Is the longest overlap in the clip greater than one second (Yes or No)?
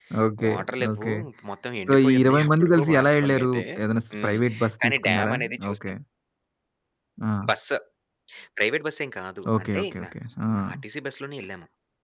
Yes